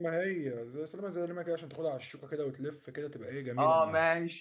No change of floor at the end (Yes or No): No